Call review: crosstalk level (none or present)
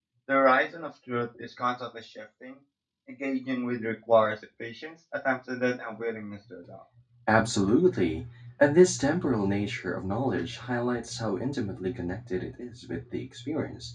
none